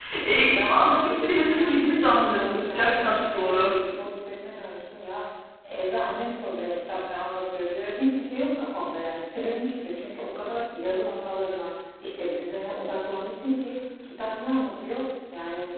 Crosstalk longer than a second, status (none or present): present